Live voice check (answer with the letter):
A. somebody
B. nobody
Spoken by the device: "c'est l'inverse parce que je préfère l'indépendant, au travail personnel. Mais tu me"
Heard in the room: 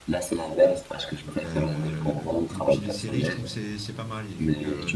A